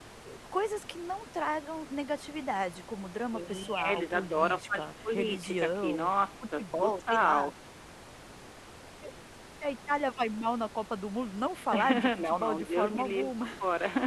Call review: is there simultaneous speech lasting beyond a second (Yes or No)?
Yes